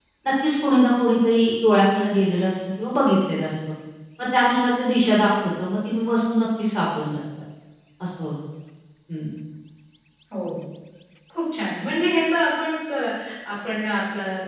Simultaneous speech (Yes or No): No